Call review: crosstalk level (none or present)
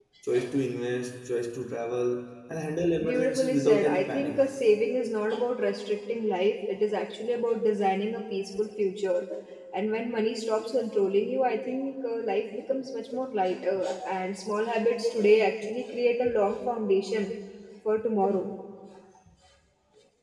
present